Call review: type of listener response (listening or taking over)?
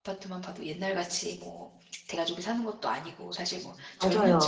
listening